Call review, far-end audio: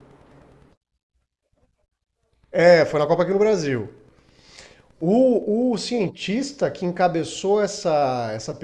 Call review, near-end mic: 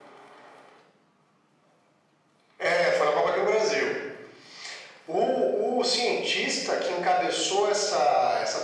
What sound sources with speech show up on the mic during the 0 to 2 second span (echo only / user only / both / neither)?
neither